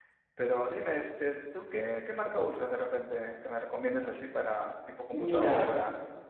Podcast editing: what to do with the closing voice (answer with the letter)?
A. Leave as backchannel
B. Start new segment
B